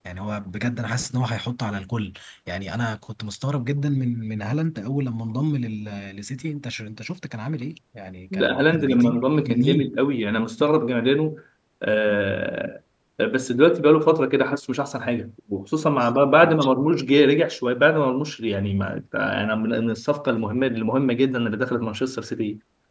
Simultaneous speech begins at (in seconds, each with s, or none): 8.3 s